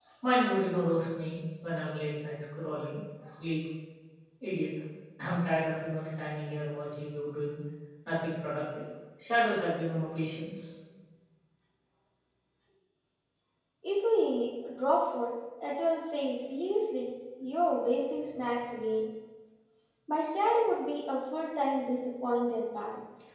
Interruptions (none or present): none